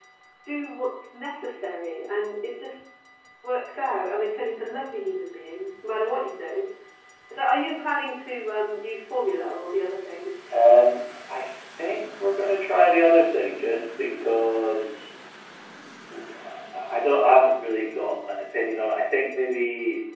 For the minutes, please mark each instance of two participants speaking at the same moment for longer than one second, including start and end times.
none

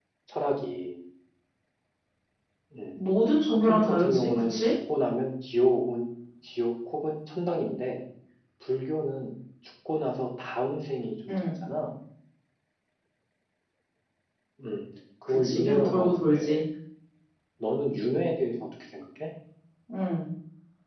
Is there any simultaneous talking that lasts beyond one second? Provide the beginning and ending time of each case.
3.5-4.7, 15.2-16.6

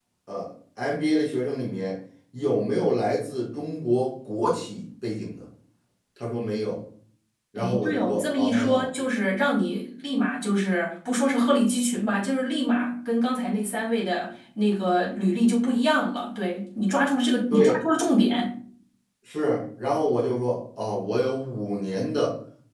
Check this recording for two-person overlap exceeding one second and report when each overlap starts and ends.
7.6-8.9

